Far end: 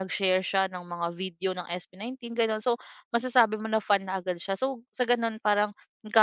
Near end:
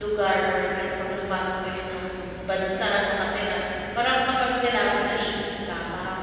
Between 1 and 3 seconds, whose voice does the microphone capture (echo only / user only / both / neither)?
user only